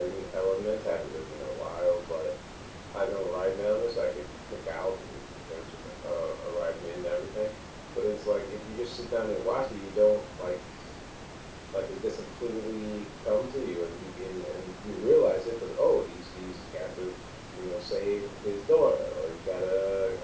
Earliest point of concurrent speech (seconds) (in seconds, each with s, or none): none